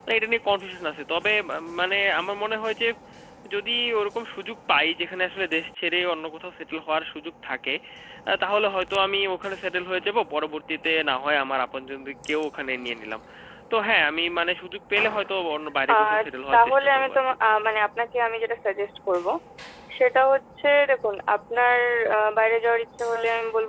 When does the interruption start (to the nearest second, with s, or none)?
16 s